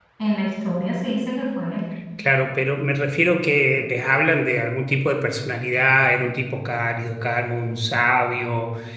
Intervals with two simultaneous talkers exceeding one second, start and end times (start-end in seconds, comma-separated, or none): none